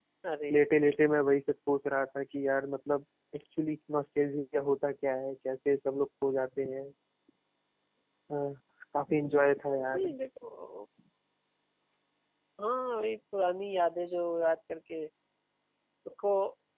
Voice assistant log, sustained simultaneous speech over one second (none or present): none